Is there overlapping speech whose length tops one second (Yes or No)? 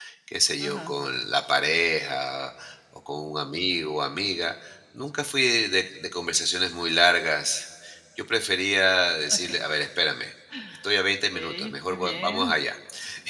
Yes